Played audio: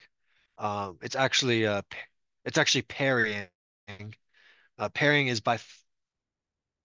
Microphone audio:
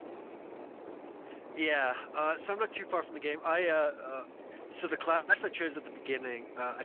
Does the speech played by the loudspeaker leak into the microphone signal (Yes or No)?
No